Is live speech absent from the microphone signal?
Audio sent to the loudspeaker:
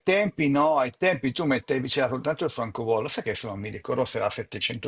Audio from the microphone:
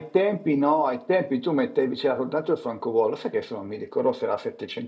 Yes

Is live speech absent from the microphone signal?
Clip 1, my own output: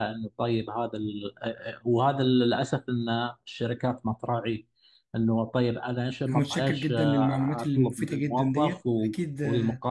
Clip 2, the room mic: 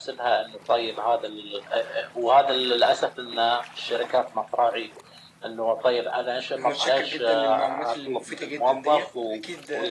Yes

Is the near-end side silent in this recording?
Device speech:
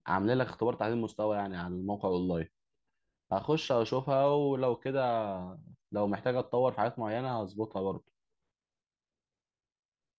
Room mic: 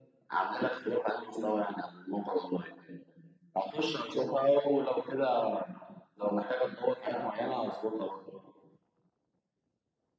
Yes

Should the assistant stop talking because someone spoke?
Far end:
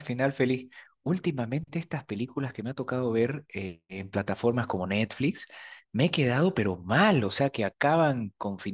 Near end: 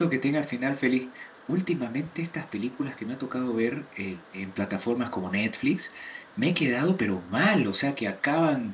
No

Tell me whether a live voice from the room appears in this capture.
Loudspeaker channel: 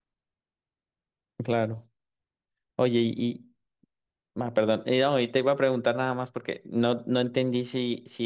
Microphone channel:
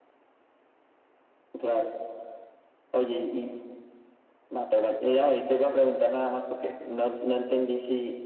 No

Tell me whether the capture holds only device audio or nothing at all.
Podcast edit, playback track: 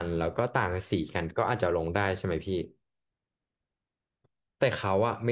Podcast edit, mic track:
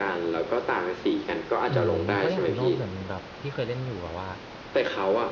No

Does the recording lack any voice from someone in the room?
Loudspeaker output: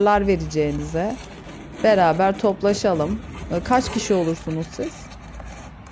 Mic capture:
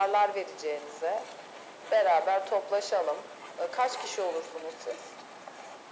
Yes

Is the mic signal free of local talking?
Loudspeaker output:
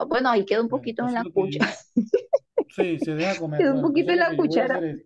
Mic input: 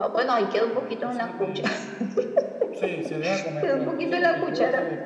Yes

